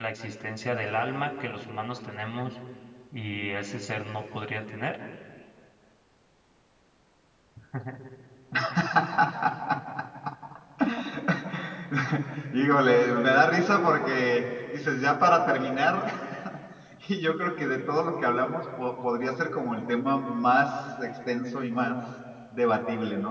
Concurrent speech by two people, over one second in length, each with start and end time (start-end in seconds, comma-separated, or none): none